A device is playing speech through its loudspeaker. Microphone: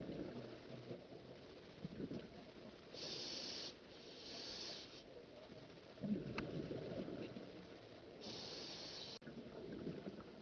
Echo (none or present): none